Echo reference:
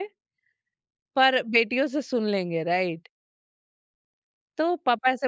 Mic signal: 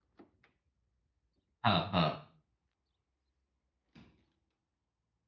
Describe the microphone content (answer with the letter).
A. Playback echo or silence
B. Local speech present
B